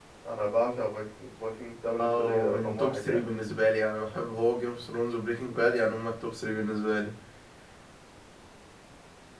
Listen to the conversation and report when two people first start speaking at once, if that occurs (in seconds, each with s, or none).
2.0 s